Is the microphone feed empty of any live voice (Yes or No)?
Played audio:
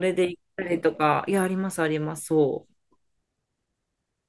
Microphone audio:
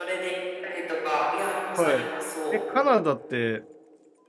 No